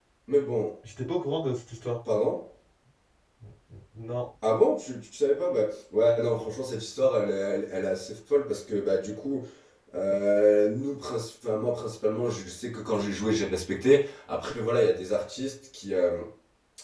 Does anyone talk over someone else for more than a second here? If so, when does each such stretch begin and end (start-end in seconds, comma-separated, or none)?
none